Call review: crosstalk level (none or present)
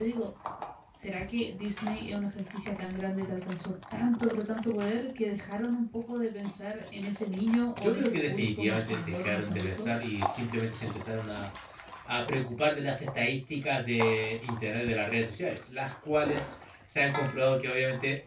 present